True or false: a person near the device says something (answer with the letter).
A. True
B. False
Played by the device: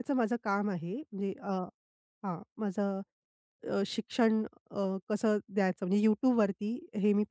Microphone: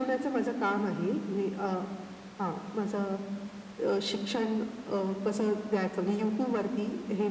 B